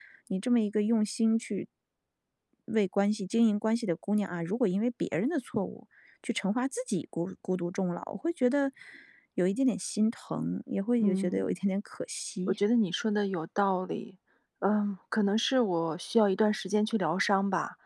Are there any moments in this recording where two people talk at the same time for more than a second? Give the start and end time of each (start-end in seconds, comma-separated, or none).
none